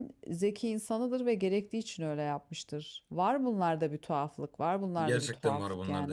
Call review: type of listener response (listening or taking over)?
taking over